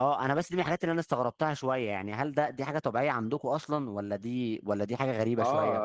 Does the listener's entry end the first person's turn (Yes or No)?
Yes